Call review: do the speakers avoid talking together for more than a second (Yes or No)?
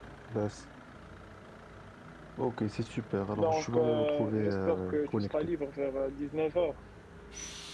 No